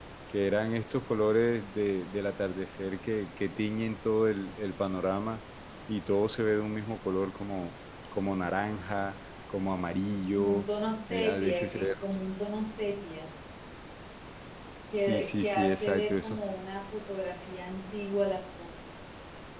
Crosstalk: present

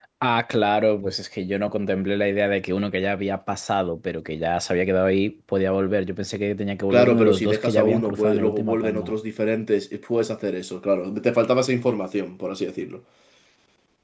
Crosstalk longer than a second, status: present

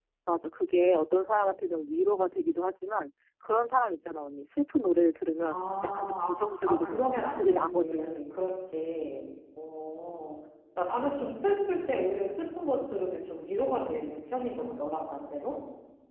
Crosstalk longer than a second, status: present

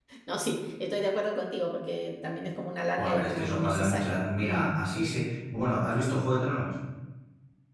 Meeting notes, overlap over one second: present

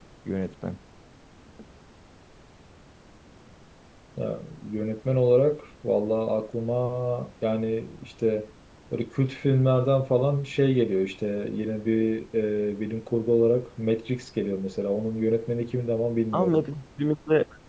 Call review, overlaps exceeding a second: none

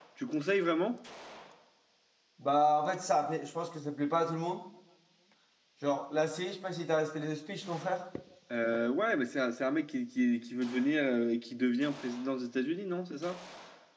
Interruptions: none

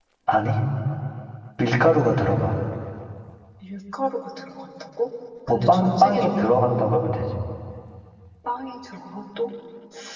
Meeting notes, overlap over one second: present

